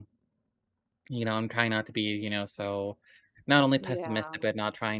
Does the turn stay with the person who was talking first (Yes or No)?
Yes